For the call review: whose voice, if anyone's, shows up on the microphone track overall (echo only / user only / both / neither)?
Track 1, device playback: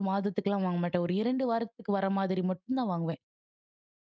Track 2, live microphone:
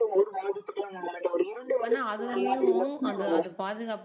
both